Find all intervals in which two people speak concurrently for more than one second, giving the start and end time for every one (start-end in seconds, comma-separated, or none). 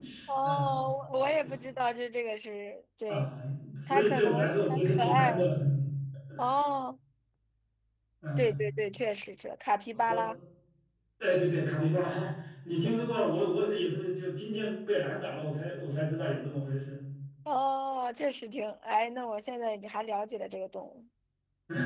3.9-5.3